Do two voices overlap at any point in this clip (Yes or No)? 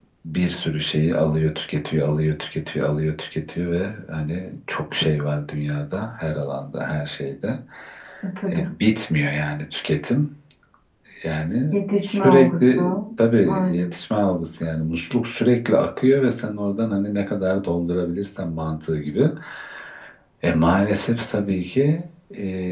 Yes